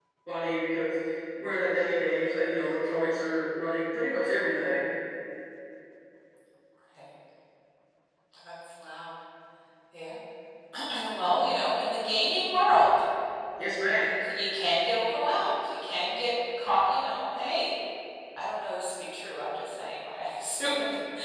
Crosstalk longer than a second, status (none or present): none